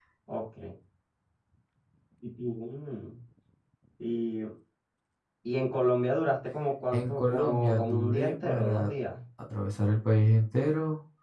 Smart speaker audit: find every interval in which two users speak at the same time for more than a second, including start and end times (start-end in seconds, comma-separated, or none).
6.9-8.9